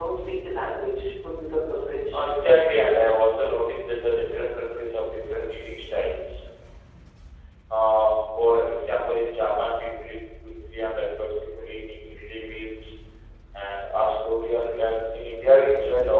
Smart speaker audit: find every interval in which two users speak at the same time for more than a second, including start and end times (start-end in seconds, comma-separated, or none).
none